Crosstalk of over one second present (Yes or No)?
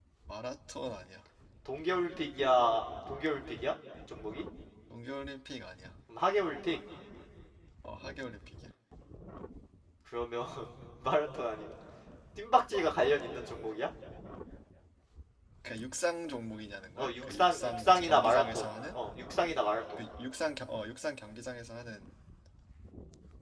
Yes